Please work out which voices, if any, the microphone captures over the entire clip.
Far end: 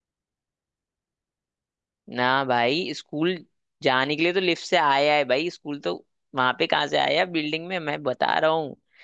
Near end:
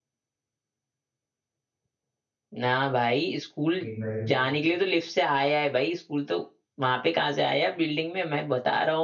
both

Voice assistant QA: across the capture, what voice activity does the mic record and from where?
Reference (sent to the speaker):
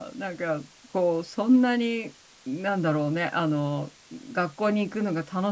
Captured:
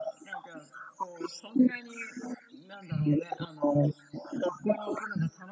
echo only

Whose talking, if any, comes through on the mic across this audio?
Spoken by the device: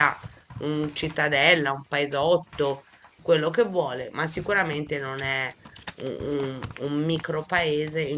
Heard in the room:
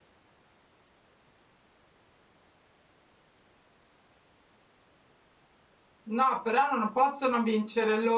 user only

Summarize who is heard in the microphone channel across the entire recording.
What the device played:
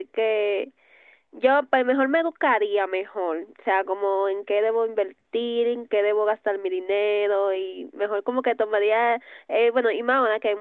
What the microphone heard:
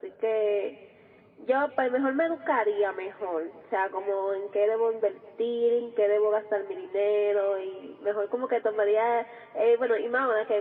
echo only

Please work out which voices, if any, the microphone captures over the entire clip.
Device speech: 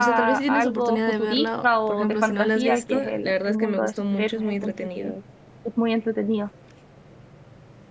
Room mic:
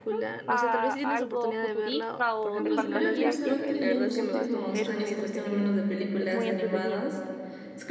both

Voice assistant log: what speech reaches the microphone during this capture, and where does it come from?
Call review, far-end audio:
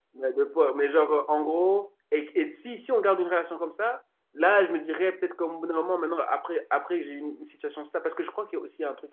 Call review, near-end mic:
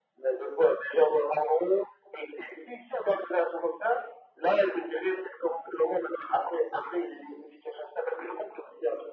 echo only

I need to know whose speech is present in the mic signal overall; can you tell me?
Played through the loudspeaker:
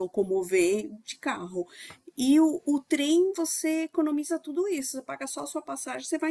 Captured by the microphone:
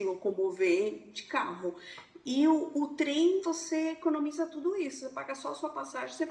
echo only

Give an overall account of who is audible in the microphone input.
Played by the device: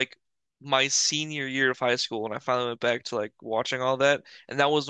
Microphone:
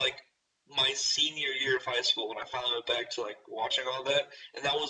echo only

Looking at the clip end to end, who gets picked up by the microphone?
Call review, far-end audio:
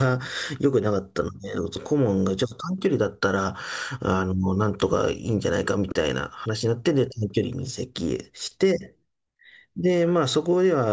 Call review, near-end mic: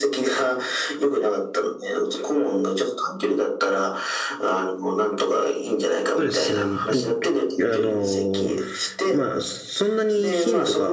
both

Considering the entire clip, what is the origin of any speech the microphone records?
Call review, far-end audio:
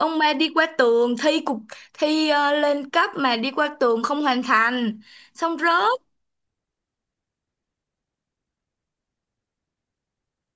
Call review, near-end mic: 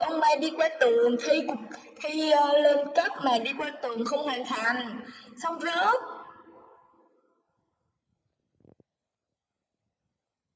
echo only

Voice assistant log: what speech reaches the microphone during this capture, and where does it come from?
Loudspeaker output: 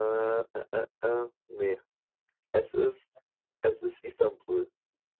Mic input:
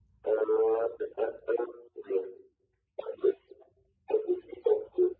echo only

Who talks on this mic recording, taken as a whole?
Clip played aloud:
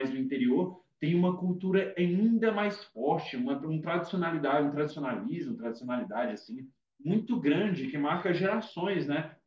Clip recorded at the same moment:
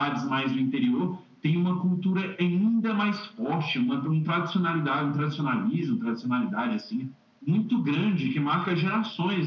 echo only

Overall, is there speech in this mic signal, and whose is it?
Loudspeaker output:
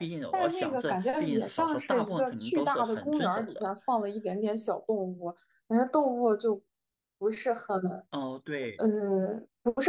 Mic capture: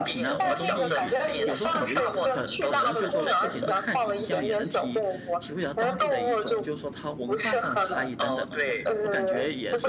both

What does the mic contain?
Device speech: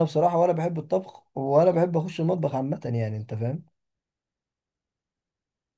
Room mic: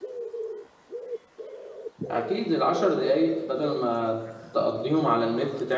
user only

